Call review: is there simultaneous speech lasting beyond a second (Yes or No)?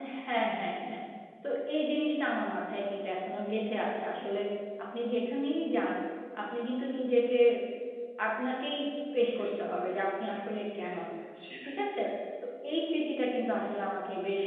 No